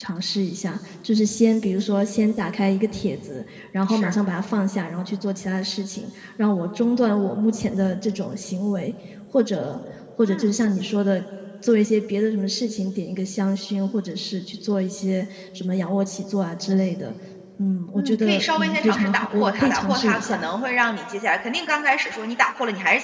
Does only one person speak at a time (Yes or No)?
No